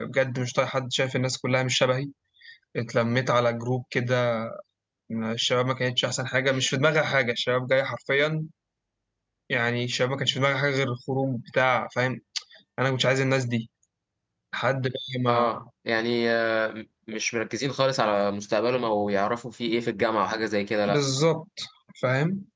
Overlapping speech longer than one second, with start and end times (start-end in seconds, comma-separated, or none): none